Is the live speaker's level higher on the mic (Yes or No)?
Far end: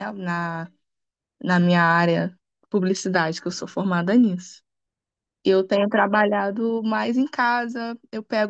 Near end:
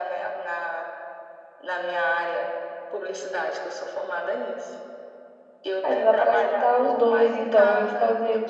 Yes